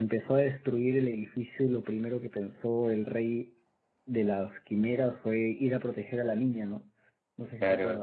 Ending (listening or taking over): taking over